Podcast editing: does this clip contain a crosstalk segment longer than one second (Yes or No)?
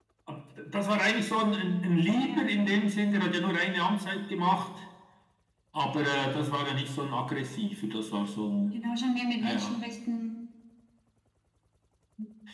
No